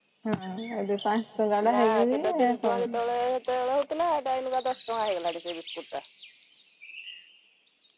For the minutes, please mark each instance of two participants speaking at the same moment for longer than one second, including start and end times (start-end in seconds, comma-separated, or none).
1.7-3.0